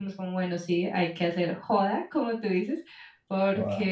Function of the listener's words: listening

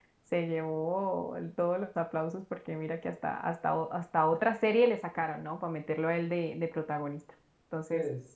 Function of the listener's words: listening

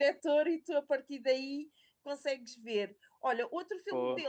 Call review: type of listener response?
listening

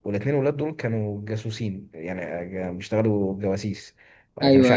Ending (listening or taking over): listening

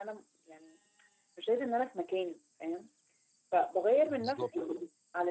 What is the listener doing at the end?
listening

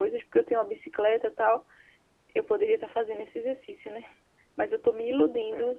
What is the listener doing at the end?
listening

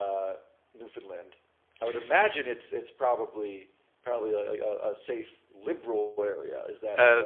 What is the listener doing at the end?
taking over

